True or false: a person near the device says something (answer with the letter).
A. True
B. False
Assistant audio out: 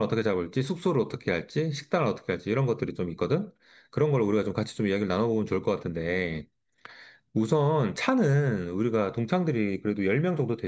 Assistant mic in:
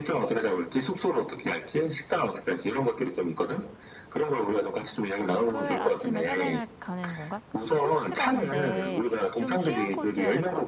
A